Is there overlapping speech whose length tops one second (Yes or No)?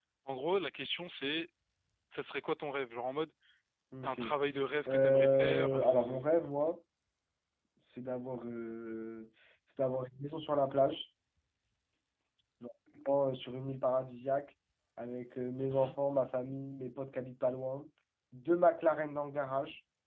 Yes